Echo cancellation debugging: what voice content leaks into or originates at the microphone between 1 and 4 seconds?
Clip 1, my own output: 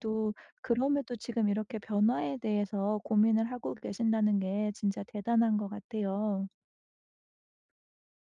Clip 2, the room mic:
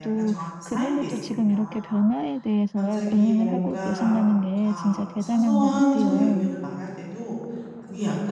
both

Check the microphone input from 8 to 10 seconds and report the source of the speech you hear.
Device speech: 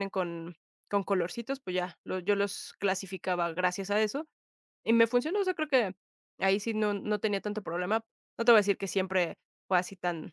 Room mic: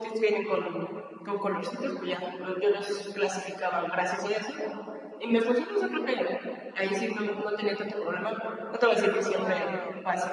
both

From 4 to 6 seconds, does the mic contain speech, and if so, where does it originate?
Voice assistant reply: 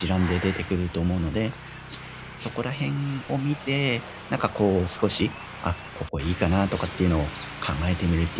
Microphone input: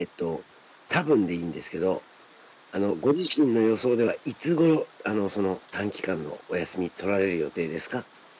user only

